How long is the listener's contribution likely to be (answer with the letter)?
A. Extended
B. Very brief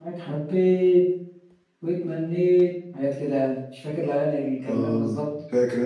A